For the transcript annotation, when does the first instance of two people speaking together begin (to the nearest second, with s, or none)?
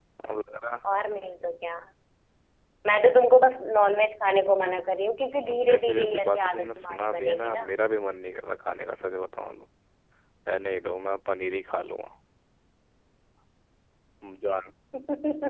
5 s